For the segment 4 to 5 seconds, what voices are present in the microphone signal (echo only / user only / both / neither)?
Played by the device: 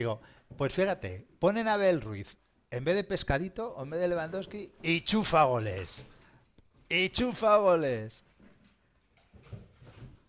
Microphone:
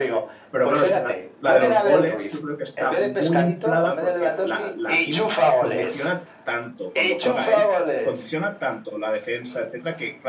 both